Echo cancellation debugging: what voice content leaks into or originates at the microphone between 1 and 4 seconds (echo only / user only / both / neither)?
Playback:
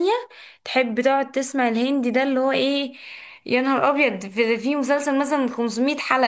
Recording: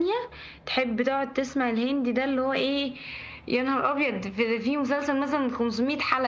echo only